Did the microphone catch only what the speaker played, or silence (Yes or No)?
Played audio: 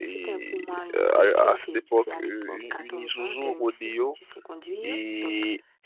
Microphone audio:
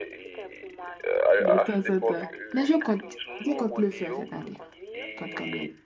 No